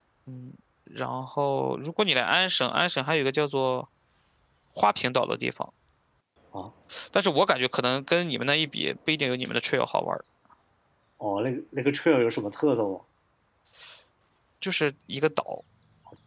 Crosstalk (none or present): none